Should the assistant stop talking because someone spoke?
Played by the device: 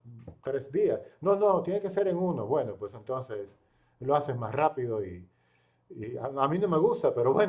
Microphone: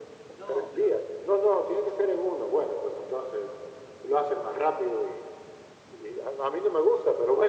Yes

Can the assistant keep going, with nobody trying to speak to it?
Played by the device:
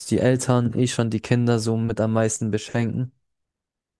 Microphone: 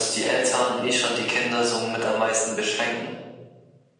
Yes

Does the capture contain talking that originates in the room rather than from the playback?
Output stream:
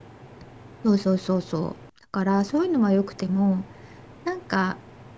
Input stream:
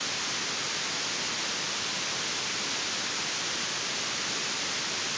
No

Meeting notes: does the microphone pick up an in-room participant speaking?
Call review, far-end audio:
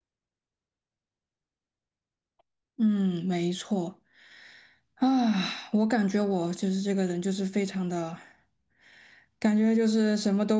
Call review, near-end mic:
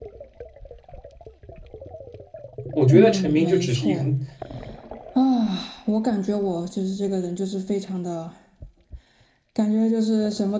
Yes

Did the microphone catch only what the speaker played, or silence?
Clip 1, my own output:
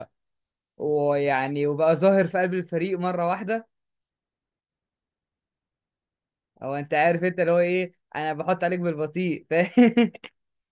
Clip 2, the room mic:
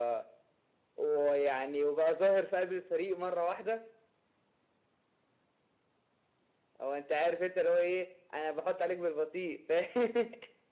Yes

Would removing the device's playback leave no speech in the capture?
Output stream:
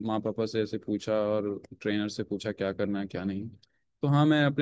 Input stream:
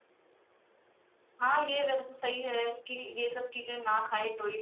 No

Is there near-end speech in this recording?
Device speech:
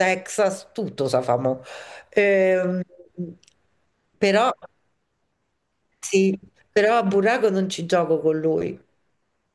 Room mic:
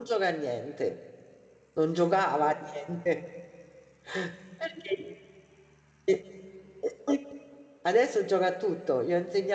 Yes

